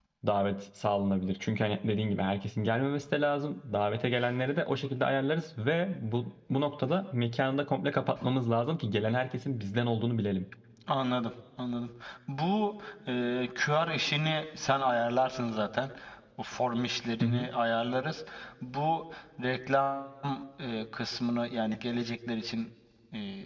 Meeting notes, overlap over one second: none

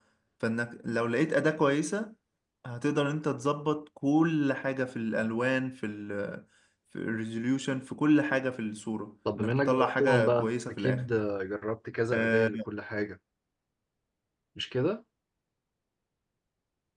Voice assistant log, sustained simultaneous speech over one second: present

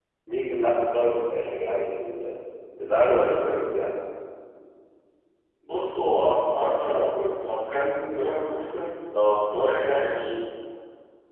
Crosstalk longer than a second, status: none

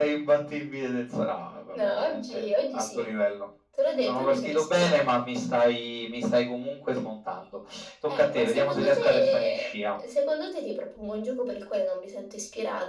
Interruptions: present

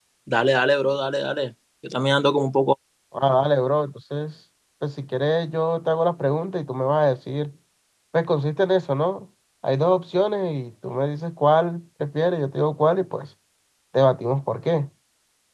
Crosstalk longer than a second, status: none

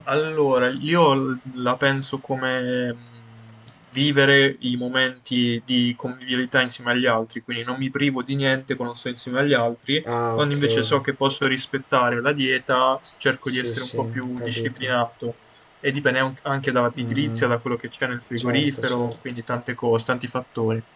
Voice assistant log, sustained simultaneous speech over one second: present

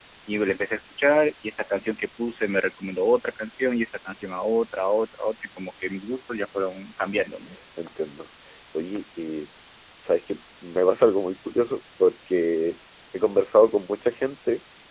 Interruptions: none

